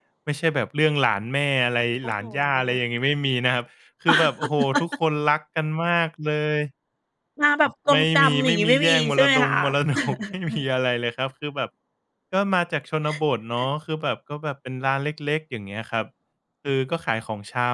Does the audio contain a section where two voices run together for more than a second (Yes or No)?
Yes